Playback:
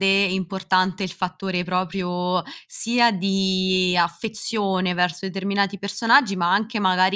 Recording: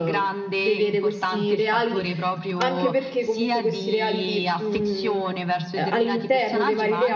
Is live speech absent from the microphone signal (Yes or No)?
No